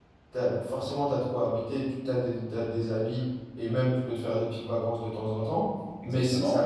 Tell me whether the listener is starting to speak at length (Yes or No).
No